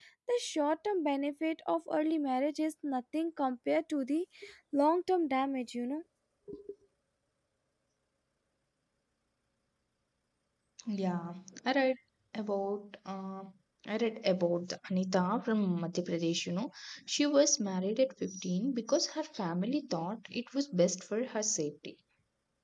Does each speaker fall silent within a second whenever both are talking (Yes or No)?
Yes